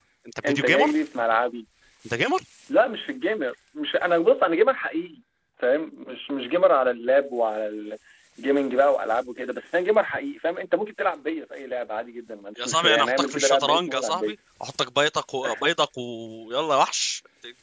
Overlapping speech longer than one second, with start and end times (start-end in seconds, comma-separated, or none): 12.6-14.3